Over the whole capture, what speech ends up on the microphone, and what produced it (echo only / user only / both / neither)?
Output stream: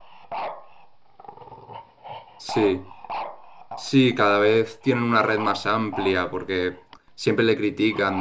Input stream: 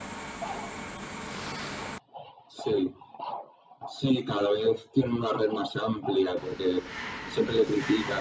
echo only